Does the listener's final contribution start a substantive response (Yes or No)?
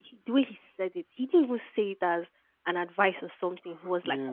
Yes